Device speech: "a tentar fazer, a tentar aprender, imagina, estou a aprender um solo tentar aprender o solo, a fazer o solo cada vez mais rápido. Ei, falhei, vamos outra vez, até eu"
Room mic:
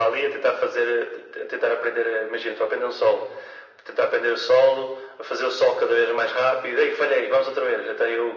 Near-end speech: none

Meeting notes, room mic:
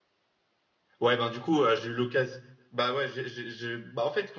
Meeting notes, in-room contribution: present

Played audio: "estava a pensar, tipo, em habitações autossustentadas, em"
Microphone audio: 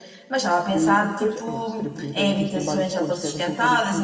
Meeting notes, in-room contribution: present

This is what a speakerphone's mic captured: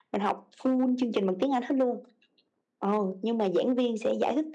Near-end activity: none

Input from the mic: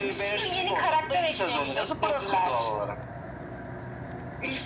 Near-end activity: none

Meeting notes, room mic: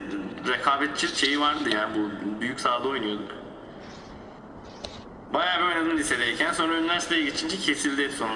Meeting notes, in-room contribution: none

